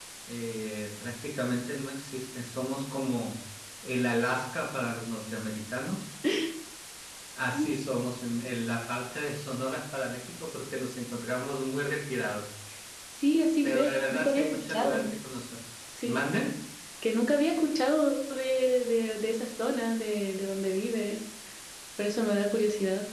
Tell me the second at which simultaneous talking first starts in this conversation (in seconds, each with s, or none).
13.6 s